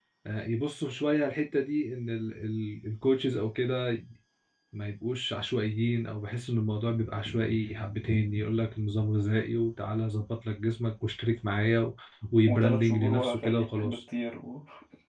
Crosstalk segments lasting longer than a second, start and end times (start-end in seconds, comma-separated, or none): 12.5-14.0